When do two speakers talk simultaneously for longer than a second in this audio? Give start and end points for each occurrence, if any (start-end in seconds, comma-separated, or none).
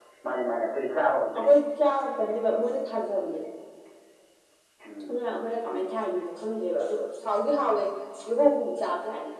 none